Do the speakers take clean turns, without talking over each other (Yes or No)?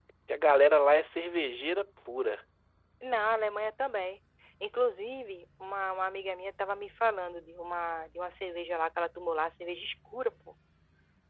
Yes